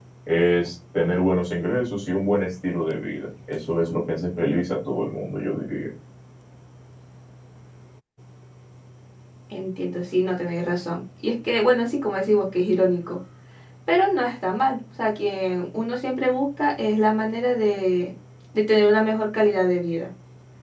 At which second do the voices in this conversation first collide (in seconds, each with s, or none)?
none